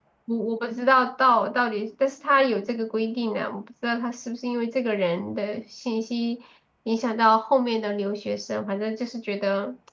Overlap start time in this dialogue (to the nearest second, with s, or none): none